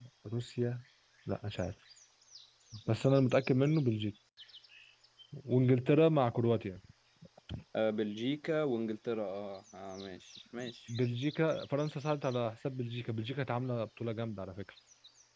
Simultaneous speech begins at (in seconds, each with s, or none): none